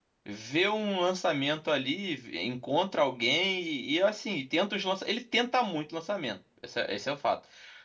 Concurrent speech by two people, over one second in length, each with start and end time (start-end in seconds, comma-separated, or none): none